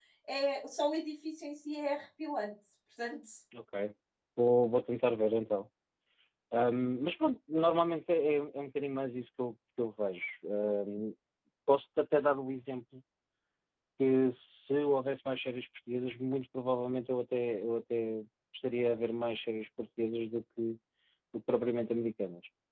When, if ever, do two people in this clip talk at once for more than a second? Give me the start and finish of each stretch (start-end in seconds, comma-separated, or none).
none